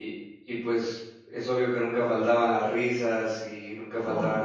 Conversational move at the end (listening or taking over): listening